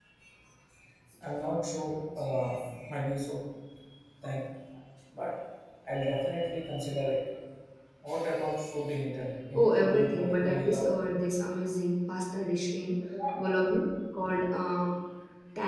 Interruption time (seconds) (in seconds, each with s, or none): 9.6 s